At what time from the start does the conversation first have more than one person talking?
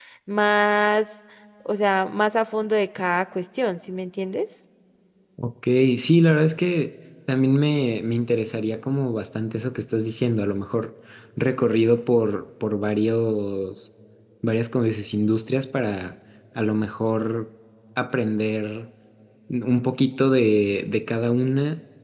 none

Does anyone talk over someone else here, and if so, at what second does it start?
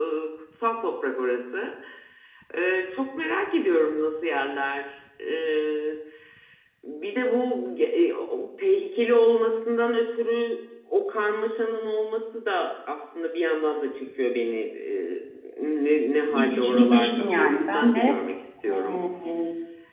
16.3 s

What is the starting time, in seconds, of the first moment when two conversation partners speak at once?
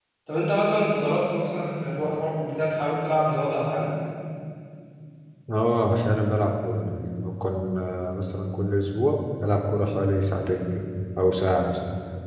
none

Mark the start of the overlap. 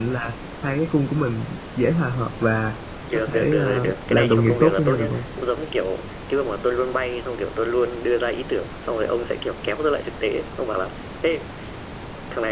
3.1 s

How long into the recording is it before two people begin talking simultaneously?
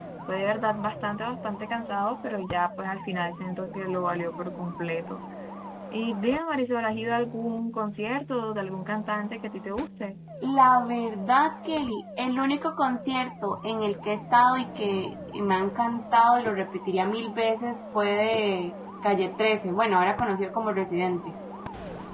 none

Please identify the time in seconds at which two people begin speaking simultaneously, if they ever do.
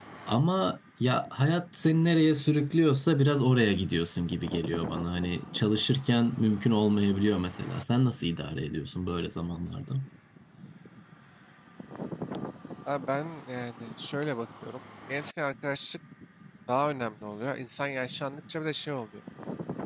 none

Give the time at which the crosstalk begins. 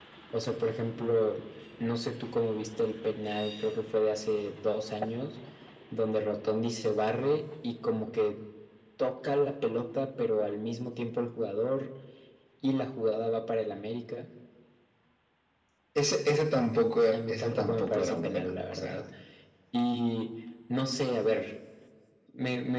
17.1 s

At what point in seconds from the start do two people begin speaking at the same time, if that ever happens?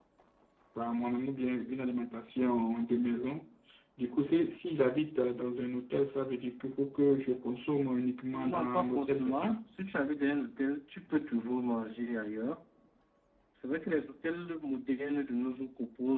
8.3 s

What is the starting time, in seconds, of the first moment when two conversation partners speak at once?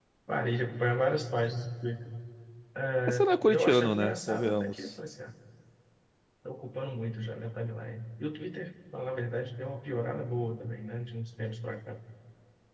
3.1 s

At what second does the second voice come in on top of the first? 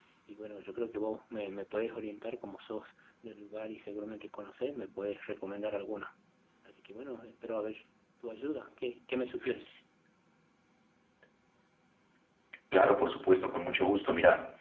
none

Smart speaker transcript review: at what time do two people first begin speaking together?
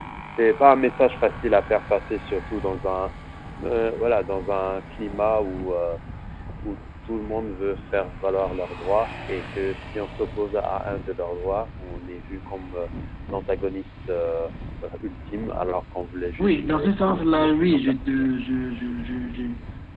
16.4 s

